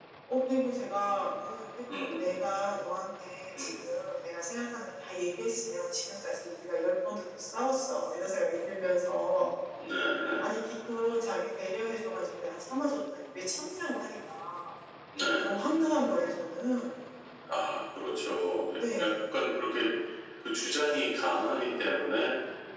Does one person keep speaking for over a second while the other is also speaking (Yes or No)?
No